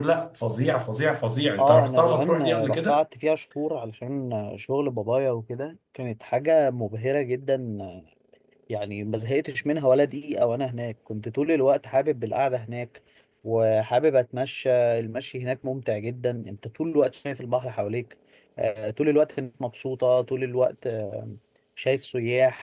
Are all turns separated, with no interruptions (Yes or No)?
No